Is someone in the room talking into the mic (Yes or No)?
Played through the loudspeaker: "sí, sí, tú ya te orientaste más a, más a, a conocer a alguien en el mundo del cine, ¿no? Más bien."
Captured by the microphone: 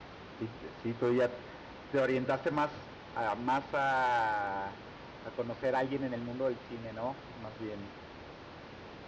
No